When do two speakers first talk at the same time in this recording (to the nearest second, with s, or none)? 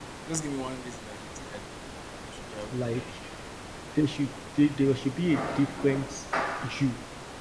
none